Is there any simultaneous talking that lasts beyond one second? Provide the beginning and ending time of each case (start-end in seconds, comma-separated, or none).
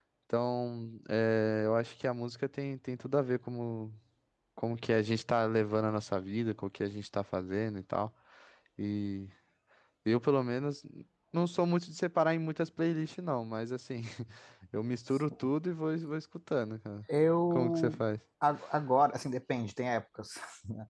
none